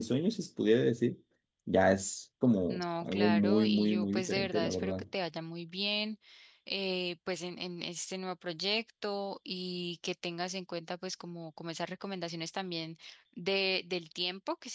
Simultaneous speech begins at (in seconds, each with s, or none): 2.7 s